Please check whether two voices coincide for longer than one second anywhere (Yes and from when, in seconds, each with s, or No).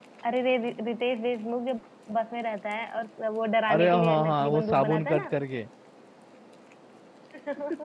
Yes, from 3.7 s